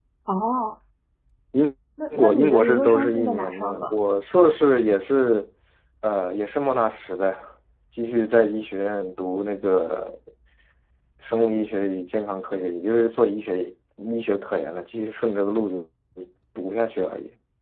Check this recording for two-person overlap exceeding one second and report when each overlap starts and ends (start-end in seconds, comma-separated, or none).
2.2-3.9